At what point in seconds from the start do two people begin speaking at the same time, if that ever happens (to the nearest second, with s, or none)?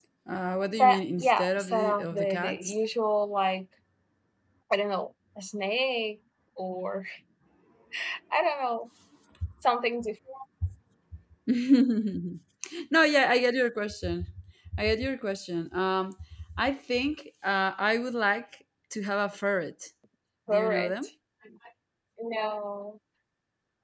1 s